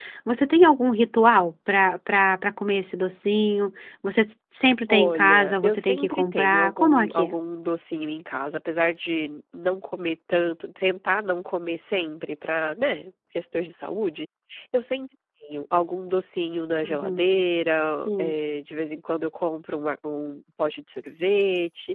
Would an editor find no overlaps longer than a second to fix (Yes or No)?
No